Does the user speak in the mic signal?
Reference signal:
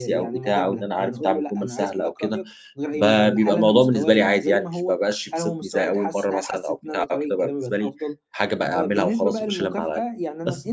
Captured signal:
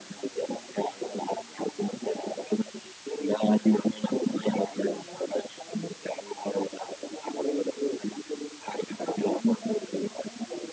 No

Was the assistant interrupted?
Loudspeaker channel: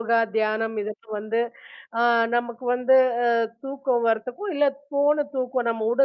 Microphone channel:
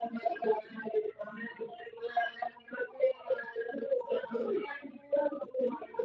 No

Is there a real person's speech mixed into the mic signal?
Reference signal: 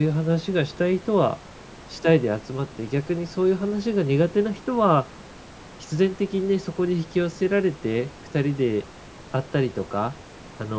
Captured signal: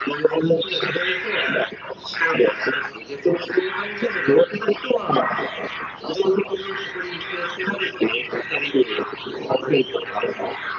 No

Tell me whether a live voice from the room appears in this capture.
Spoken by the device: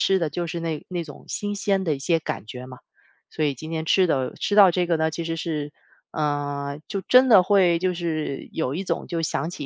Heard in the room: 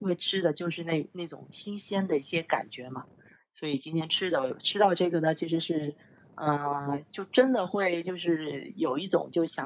No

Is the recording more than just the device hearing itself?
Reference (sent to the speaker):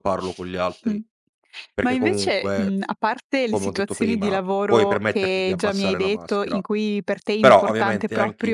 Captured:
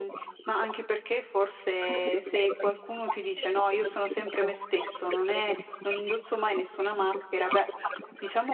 Yes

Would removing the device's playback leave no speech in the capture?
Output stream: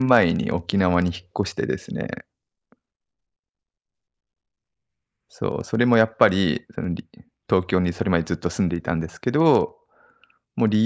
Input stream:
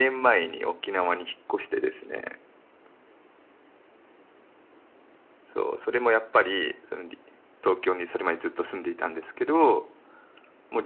Yes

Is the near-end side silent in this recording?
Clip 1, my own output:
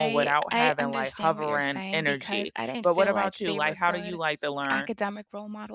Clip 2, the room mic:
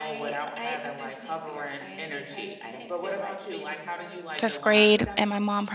No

